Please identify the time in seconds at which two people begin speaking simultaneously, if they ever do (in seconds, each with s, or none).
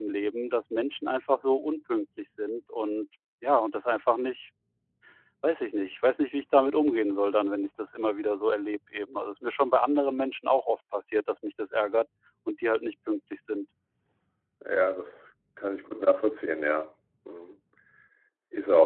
none